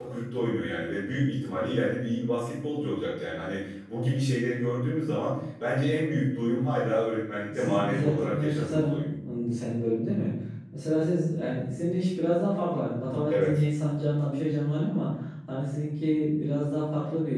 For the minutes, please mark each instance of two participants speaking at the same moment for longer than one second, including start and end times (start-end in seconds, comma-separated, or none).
7.5-9.1